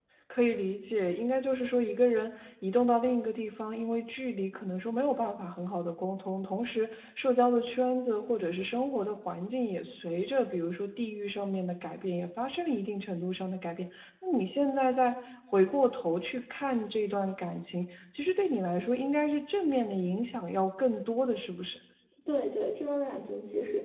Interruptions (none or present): none